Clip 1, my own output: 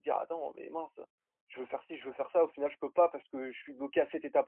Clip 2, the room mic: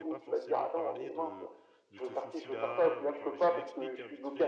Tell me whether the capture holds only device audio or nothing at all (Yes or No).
No